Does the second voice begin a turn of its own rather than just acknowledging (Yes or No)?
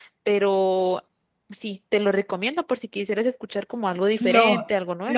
Yes